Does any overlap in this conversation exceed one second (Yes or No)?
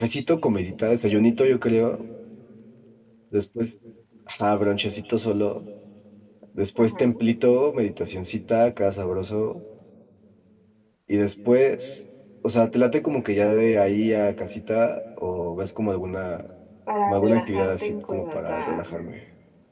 Yes